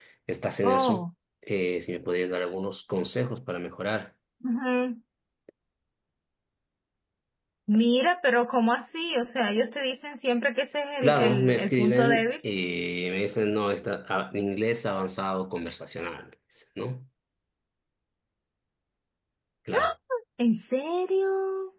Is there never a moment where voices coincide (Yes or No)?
No